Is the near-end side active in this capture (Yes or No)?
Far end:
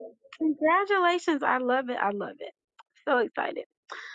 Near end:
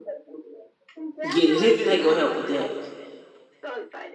Yes